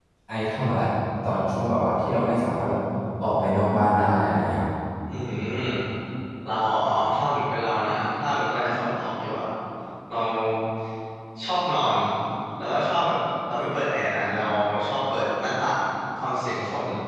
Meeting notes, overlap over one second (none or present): none